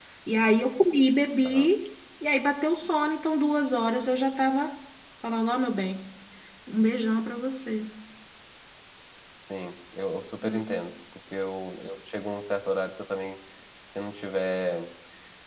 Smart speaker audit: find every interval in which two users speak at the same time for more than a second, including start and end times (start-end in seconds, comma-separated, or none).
none